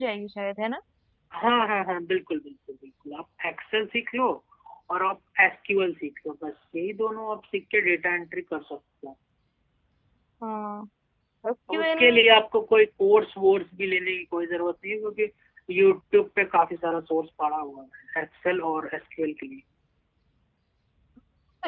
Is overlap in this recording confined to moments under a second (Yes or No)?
Yes